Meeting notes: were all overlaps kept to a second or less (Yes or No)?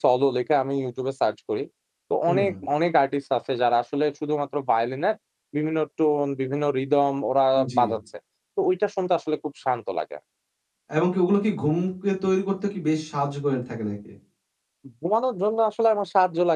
Yes